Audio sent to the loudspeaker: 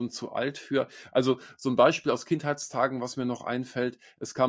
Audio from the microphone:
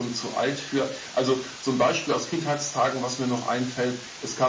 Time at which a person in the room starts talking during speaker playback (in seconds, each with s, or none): none